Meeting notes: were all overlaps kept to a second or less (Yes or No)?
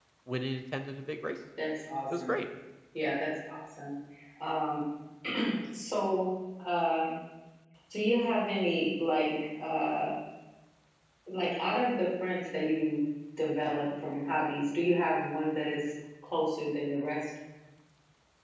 Yes